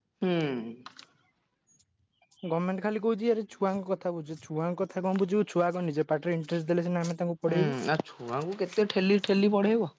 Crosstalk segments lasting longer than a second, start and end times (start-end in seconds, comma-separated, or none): none